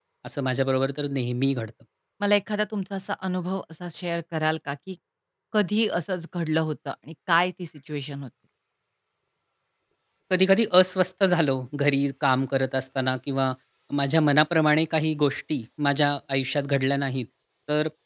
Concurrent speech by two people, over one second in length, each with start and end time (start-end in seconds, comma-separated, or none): none